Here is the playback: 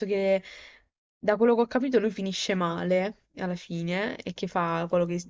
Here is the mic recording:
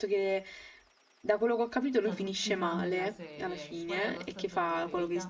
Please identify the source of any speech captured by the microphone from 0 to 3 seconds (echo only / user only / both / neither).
both